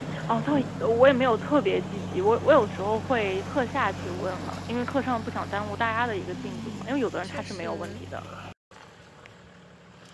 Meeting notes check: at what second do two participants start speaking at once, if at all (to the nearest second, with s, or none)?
6 s